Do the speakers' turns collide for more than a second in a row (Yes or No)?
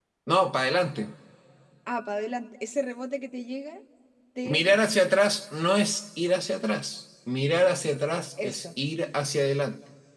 No